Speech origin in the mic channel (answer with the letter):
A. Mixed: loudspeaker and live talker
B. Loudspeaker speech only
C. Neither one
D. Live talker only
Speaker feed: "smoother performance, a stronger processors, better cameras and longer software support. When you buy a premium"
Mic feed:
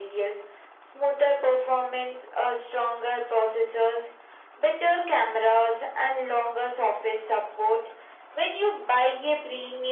B